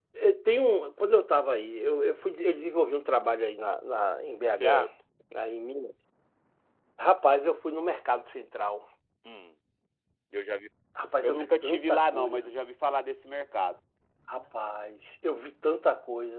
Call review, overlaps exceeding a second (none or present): present